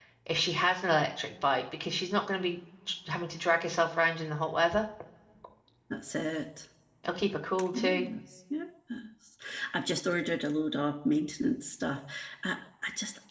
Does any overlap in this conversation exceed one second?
No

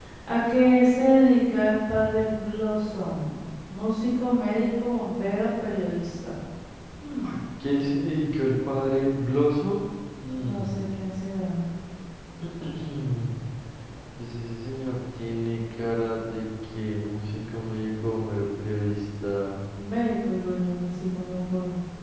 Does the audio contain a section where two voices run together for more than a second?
No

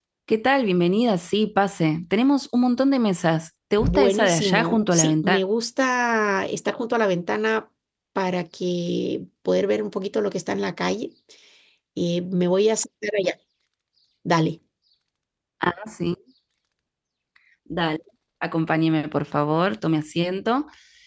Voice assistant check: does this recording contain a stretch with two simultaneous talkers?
Yes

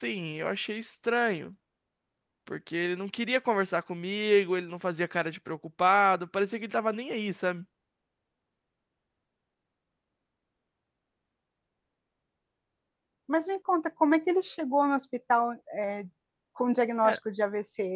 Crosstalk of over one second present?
No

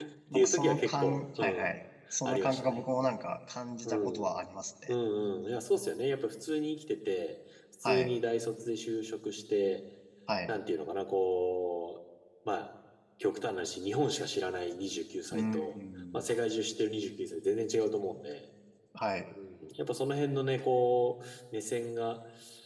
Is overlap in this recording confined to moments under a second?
No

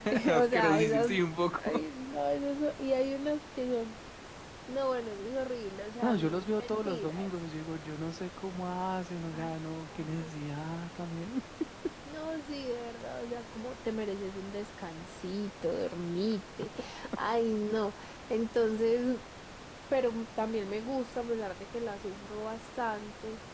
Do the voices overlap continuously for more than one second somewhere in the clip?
Yes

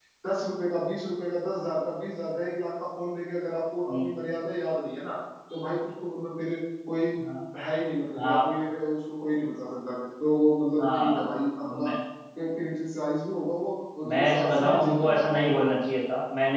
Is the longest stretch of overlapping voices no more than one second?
No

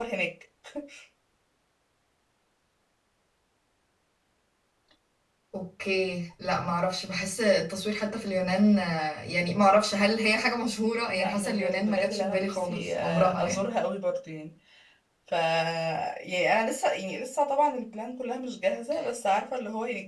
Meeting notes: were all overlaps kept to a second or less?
No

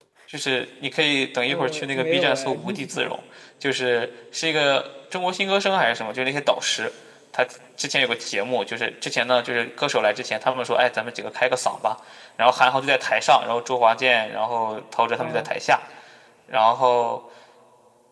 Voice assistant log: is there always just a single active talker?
No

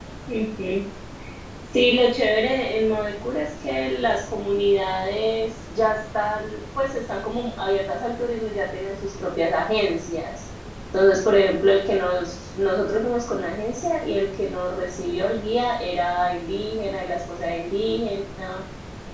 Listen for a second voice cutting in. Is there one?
No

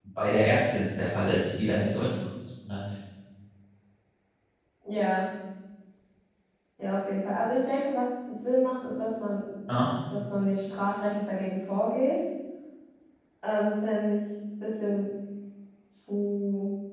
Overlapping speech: No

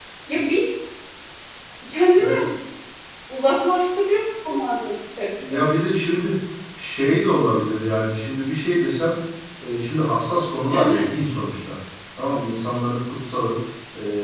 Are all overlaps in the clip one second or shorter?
Yes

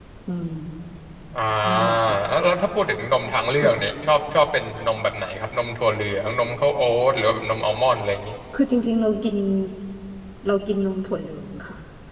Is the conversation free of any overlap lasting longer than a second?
Yes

